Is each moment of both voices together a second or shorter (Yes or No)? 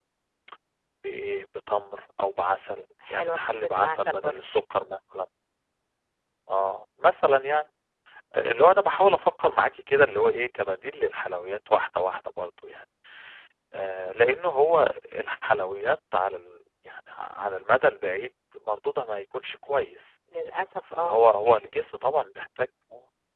No